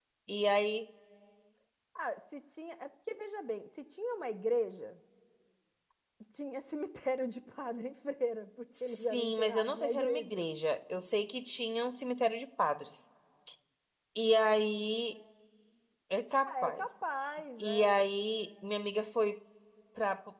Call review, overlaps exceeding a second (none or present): present